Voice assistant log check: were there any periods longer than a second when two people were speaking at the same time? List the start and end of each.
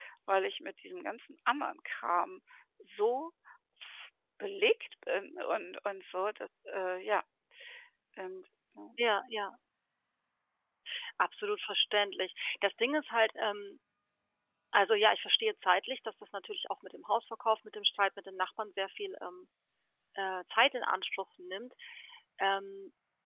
none

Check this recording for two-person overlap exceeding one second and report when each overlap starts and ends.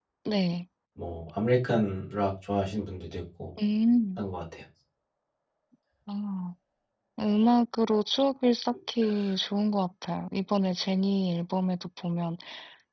none

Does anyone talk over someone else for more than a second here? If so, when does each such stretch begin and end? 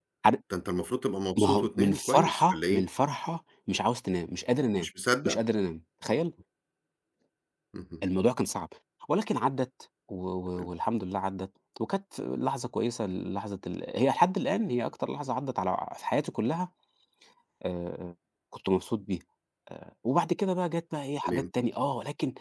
1.4-2.8

